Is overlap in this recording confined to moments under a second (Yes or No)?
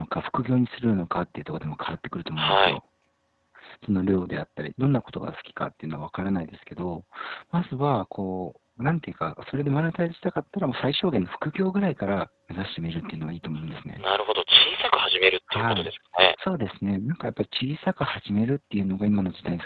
Yes